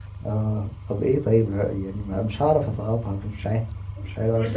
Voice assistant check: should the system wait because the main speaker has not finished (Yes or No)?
No